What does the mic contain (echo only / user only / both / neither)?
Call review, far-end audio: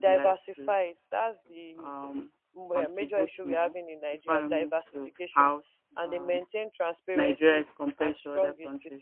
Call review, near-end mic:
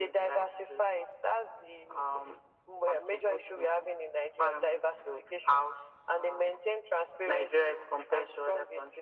echo only